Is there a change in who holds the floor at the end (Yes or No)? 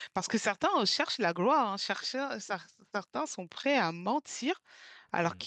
No